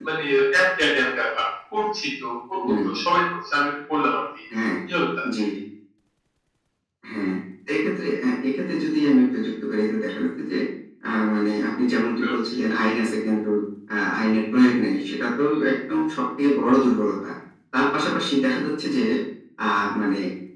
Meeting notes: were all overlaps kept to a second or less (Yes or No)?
Yes